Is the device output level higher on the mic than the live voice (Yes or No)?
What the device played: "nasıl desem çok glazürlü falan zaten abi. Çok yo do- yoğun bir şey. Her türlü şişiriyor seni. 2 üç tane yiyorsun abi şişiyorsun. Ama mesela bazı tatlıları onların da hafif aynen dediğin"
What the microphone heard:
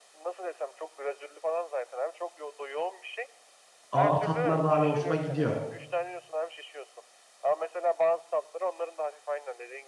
No